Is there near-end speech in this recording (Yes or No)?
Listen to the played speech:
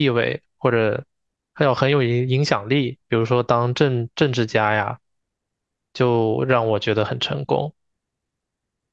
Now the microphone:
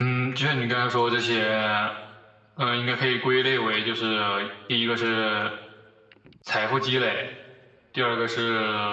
Yes